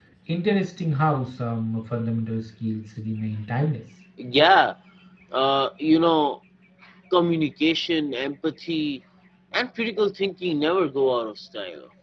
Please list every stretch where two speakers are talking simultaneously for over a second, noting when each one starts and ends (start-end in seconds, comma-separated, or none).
none